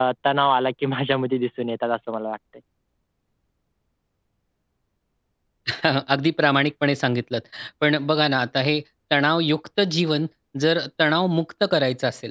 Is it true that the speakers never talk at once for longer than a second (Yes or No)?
Yes